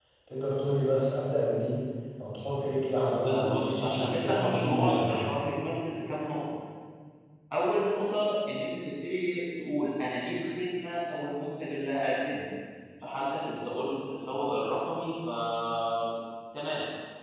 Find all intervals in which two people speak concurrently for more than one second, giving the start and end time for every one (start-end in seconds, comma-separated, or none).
3.2-5.3